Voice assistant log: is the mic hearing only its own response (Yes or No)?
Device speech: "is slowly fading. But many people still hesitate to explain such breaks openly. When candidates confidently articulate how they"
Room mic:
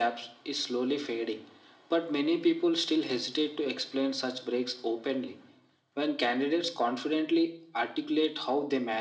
Yes